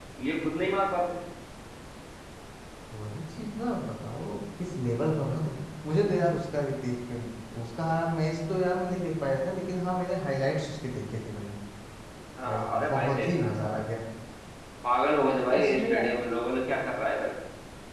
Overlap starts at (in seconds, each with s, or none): 12.5 s